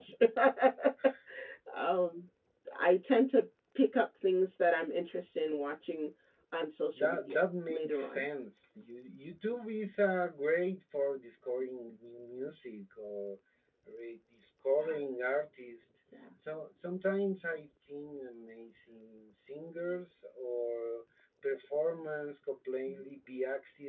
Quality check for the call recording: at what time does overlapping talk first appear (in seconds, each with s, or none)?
6.9 s